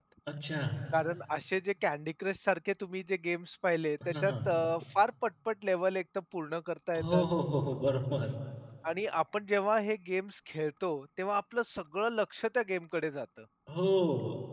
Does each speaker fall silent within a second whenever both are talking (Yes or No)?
Yes